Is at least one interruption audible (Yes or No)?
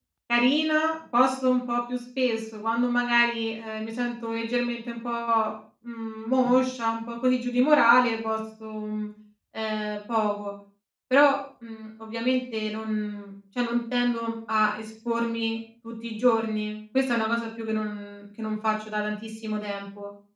No